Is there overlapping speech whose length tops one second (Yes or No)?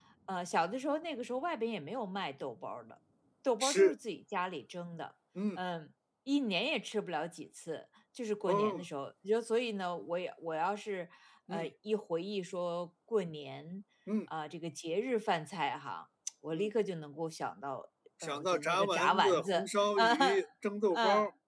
Yes